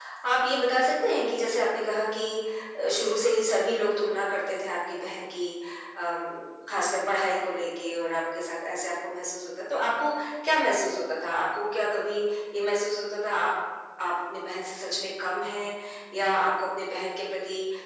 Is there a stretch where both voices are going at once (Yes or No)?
No